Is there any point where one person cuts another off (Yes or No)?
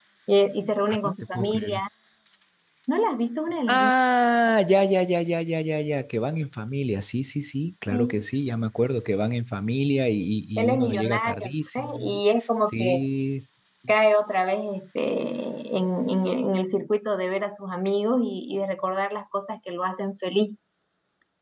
Yes